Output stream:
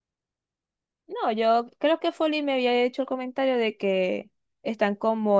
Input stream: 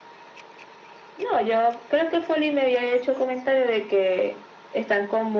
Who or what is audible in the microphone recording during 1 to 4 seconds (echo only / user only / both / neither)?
echo only